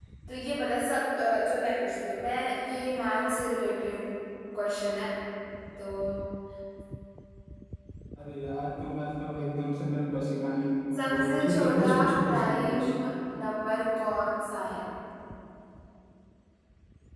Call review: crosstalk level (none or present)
present